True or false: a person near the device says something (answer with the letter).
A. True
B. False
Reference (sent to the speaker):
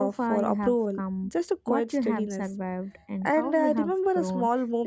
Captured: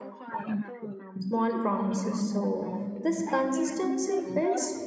A